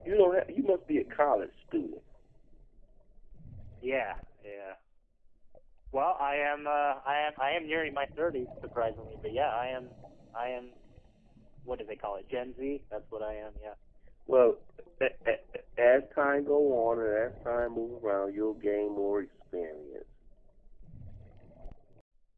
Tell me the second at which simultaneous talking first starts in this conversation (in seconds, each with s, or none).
none